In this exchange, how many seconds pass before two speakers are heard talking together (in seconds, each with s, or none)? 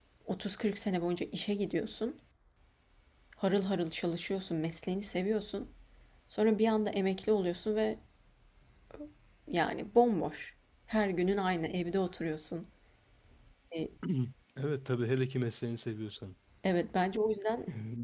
none